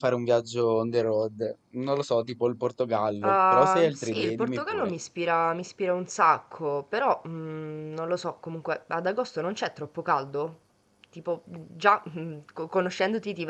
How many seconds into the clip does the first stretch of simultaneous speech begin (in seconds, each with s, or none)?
3.2 s